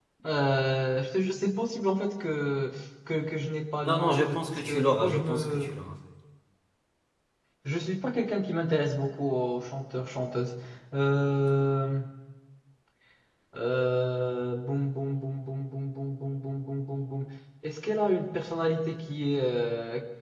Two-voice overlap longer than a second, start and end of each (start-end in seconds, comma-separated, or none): 3.8-5.8